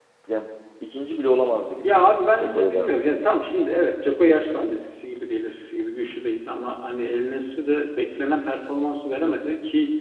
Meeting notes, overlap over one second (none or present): present